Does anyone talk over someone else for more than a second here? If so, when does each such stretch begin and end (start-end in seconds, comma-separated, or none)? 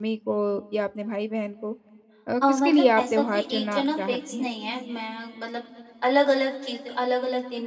2.5-4.5